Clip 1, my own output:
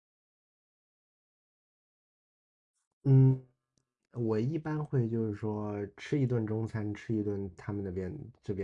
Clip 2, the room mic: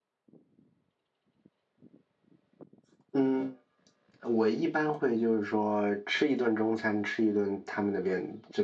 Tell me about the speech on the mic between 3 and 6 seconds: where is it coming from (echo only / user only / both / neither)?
echo only